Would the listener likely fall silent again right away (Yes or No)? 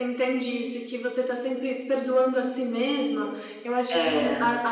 Yes